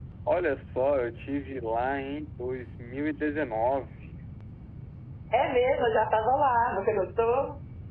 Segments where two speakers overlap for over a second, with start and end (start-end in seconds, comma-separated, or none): none